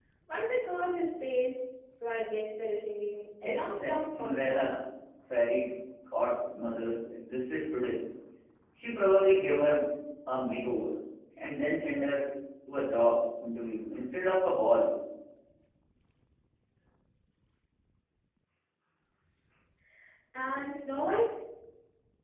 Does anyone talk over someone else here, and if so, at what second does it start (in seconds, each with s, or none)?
3.4 s